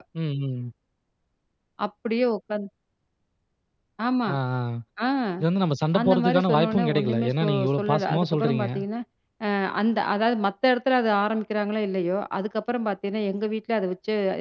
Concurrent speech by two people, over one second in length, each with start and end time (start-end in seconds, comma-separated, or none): 6.0-8.7